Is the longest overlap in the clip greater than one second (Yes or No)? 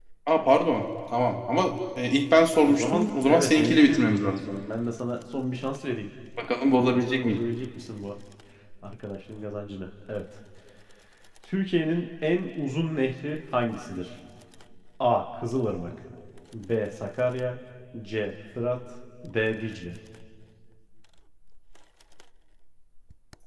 Yes